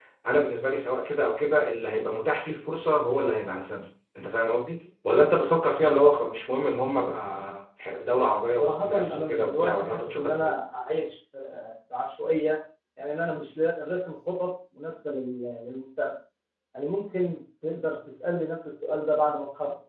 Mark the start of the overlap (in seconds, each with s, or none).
8.6 s